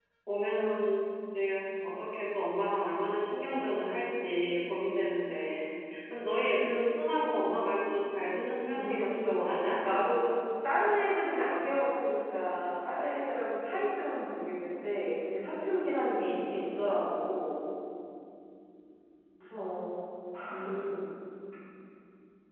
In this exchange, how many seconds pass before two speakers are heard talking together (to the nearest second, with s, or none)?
9 s